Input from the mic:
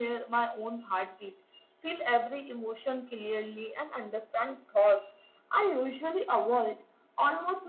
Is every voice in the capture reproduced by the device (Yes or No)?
Yes